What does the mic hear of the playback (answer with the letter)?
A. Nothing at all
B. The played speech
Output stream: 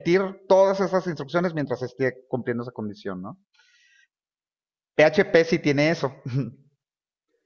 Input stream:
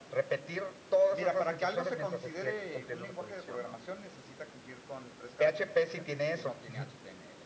B